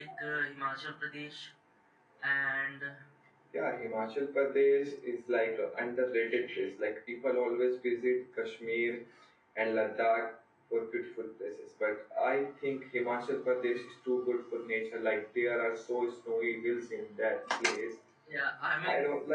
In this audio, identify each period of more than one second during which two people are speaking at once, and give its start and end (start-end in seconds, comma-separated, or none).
none